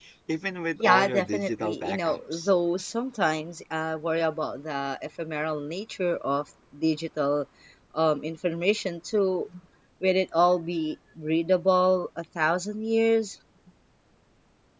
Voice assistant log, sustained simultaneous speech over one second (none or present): present